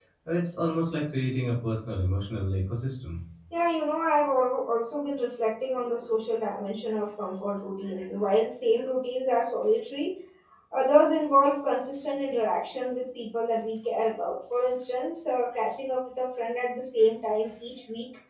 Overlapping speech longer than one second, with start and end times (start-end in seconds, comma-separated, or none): none